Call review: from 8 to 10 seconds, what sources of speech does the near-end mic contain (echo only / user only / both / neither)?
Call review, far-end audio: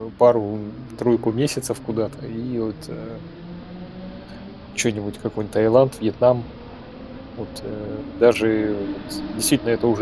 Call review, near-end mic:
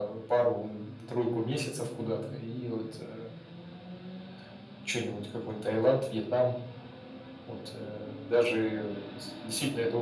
echo only